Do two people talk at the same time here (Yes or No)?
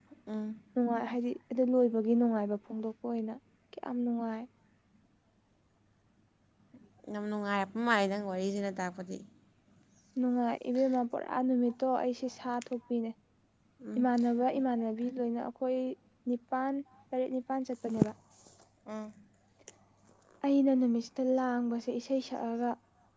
No